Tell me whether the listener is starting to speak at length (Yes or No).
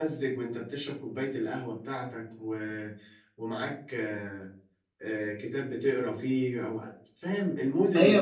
Yes